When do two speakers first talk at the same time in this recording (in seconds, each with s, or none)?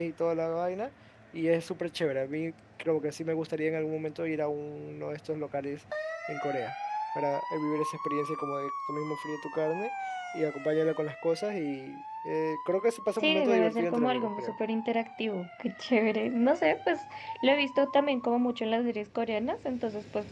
13.2 s